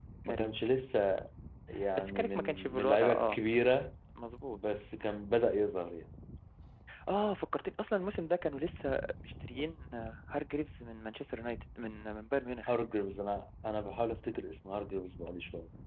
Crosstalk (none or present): present